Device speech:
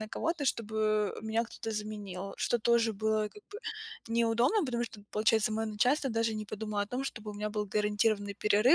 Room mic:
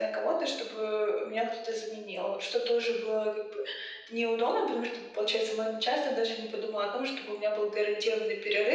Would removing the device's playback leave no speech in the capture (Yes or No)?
Yes